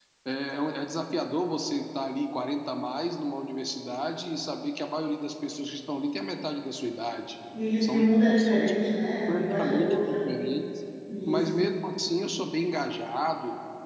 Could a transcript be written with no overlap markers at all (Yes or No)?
No